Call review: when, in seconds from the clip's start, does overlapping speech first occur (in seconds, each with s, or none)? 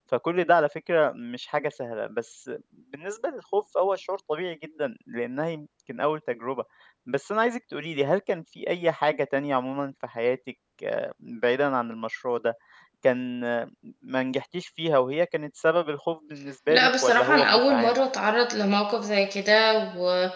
16.7 s